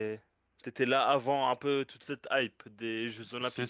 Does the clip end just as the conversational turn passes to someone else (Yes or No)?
Yes